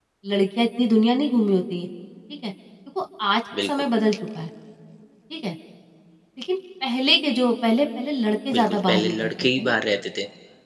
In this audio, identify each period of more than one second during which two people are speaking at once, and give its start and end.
8.5-9.7

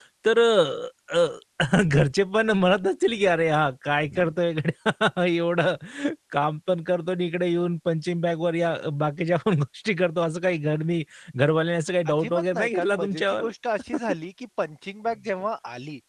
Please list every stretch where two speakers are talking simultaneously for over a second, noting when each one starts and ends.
12.1-13.5

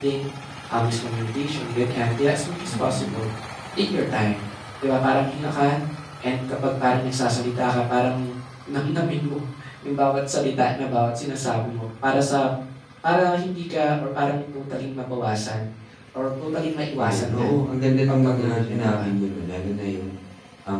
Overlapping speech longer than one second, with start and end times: 17.9-19.1

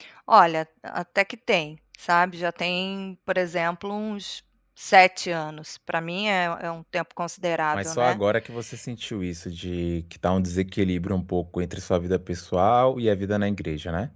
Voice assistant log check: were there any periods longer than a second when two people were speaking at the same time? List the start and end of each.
none

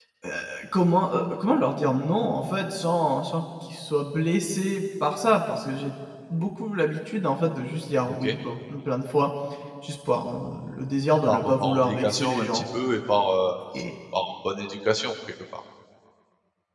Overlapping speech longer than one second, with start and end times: 11.3-12.6

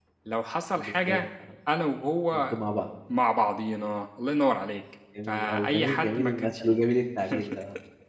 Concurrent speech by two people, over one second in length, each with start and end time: 5.3-6.7

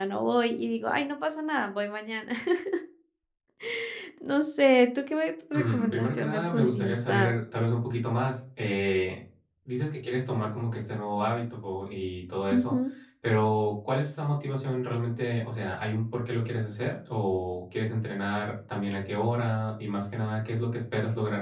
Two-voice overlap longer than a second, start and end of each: 5.5-7.3

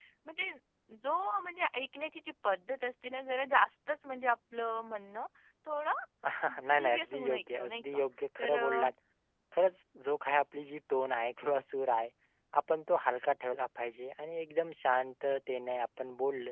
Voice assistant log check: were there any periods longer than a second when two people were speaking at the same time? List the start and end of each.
6.8-8.0

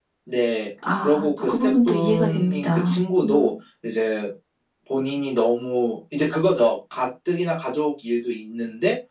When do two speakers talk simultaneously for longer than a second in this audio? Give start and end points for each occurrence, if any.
1.0-3.5

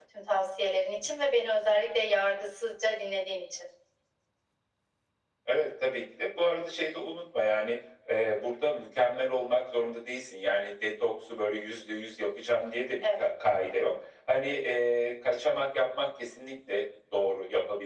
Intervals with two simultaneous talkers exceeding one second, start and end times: none

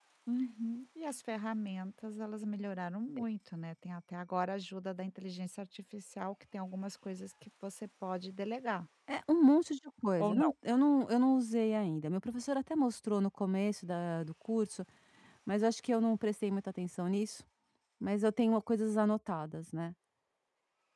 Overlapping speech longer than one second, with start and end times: none

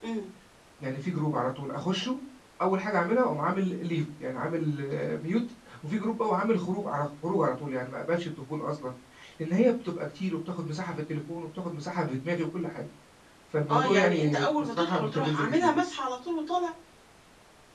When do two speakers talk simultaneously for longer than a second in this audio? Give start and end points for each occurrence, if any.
13.7-15.8

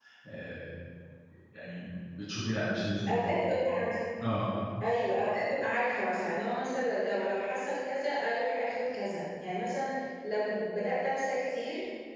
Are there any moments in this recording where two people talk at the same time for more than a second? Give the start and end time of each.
none

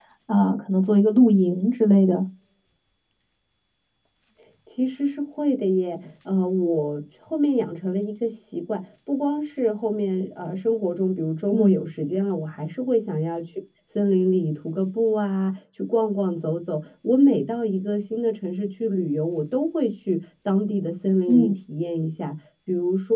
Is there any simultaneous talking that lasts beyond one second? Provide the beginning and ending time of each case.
none

